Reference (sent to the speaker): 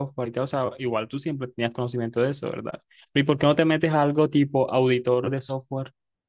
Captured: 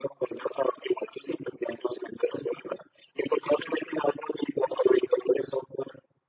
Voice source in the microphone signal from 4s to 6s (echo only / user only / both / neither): echo only